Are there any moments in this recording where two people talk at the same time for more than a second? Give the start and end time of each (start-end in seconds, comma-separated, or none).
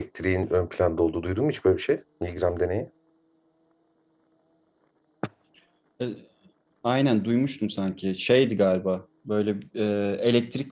none